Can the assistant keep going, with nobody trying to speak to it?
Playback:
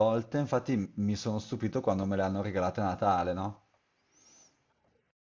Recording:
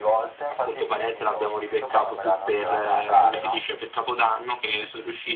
No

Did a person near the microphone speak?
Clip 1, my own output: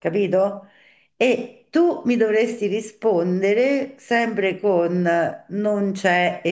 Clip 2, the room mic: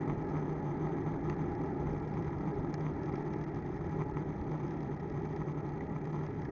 No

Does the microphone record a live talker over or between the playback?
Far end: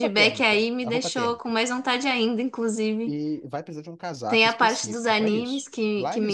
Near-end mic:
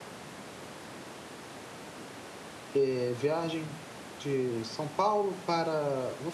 Yes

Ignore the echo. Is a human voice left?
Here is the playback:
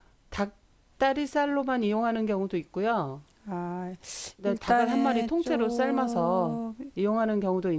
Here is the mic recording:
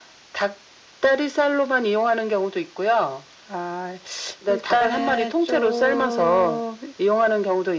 No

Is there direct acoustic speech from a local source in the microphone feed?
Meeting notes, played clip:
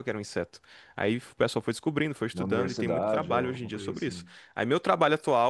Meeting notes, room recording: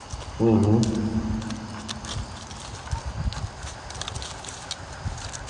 Yes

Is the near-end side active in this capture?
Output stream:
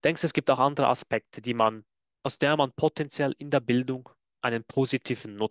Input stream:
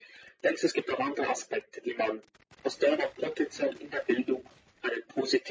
No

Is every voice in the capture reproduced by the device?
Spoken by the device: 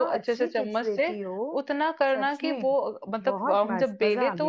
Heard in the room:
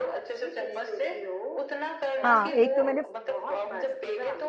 No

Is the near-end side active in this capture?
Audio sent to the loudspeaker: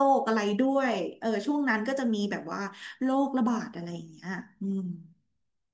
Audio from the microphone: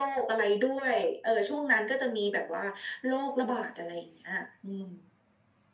No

